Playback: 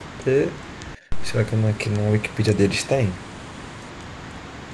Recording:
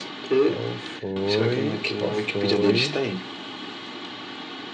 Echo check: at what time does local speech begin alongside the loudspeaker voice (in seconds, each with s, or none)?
0.4 s